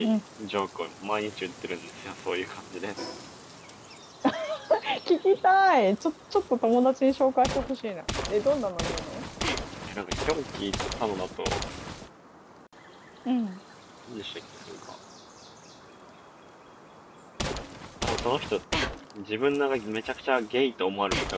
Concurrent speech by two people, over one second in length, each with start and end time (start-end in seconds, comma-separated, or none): none